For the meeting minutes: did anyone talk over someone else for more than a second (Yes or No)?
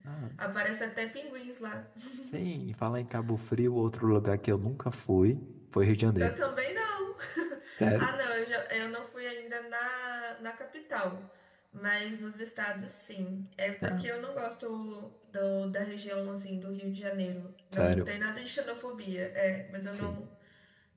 No